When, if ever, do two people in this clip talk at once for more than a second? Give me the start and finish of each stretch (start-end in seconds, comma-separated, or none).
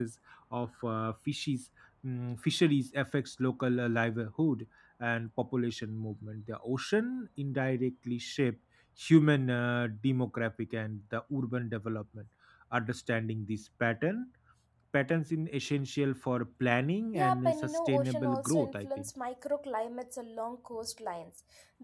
17.1-19.1